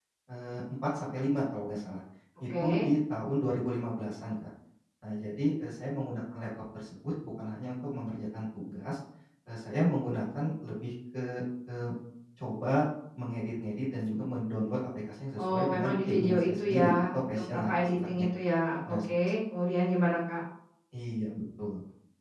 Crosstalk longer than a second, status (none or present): present